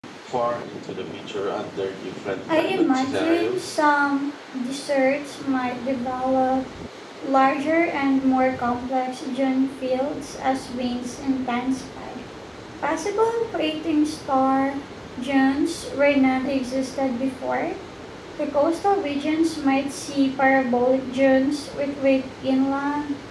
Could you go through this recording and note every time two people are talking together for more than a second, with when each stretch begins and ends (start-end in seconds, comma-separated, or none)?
2.5-3.8